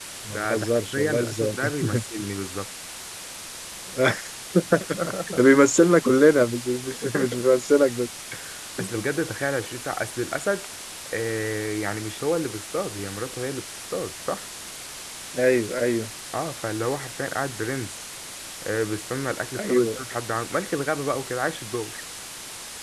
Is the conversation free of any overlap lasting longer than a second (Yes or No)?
No